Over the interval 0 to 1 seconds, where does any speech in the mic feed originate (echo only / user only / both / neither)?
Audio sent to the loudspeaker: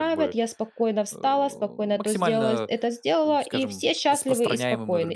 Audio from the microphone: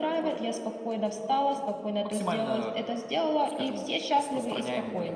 echo only